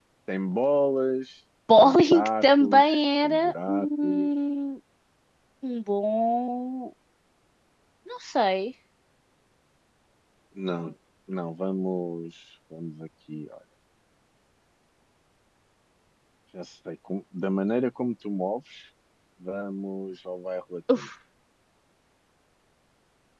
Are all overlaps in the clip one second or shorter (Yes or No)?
No